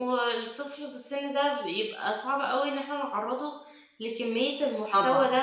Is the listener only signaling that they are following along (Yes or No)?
Yes